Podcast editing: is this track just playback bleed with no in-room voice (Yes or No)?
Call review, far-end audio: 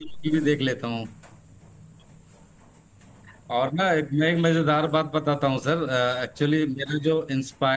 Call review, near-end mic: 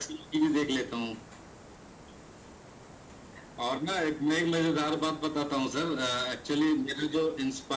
Yes